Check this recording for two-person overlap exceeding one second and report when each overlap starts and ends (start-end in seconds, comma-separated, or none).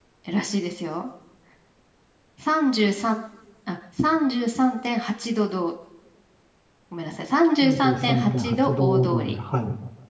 7.6-9.4